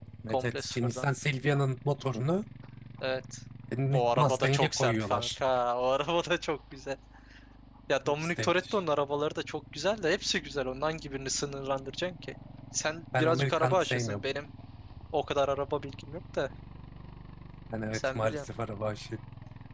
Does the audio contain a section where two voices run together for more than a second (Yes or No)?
Yes